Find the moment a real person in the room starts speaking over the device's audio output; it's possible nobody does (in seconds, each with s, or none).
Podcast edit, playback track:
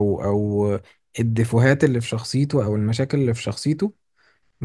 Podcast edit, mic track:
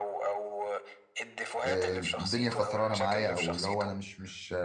1.6 s